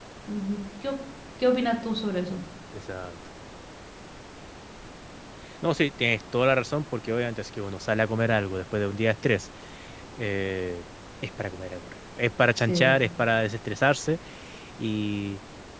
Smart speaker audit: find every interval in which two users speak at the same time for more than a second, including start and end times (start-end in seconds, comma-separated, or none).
none